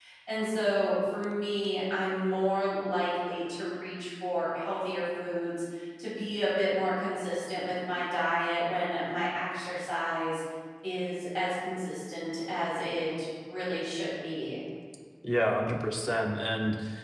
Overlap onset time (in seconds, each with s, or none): none